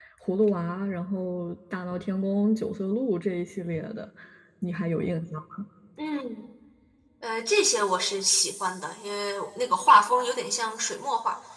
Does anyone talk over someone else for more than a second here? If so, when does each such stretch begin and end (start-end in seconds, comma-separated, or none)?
none